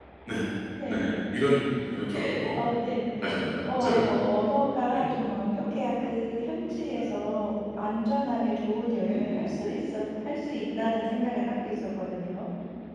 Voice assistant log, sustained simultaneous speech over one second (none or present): none